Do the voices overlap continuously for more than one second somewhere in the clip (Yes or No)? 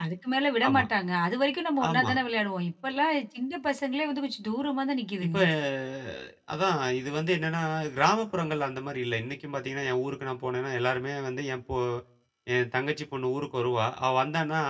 No